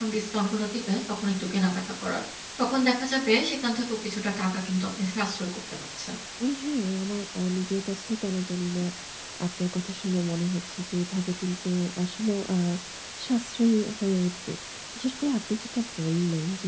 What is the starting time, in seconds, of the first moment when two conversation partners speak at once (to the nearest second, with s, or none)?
none